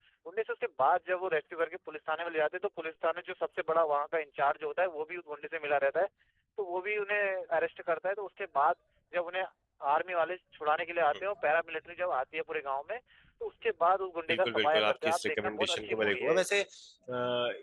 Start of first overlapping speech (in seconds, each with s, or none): 14.3 s